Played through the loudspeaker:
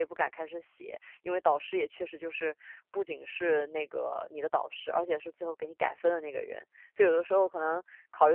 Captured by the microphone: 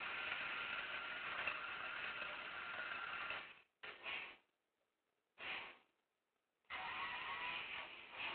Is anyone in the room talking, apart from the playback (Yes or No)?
No